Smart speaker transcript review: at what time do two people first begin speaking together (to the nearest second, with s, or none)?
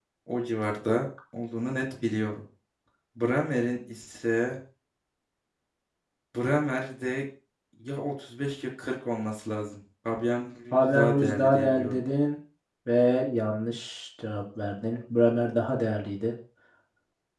11 s